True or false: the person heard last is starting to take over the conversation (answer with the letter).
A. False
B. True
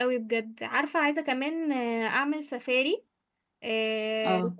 A